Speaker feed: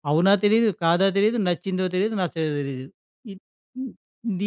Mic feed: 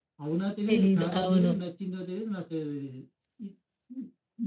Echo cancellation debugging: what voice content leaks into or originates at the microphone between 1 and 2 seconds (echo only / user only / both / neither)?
both